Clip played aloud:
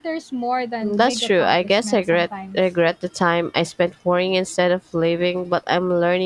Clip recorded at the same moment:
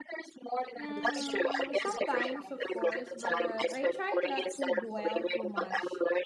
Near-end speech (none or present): present